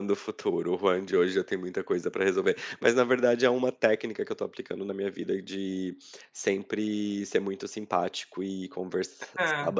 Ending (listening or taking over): listening